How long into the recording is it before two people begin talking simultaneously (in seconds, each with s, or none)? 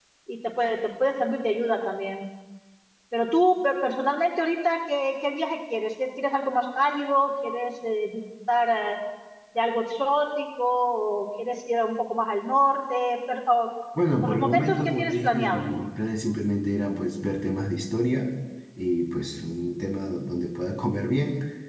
14.2 s